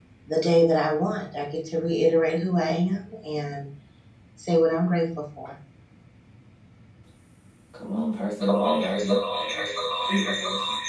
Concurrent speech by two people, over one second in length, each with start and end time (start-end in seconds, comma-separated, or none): none